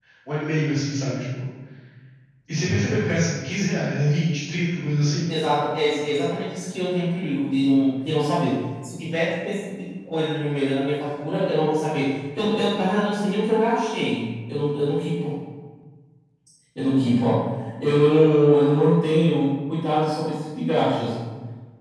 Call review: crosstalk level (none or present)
none